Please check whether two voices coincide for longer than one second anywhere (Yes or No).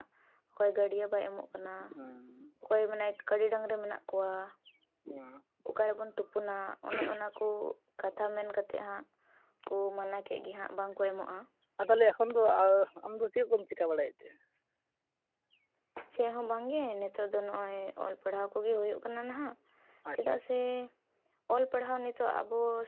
No